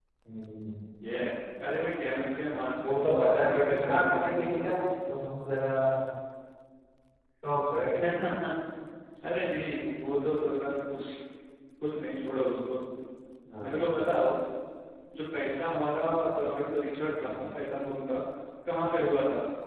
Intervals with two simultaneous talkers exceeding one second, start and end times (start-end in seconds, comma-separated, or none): 2.8-4.7